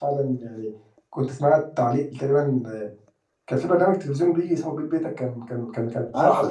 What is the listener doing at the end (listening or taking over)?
listening